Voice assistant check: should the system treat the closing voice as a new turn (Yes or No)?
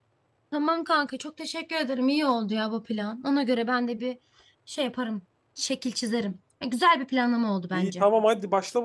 Yes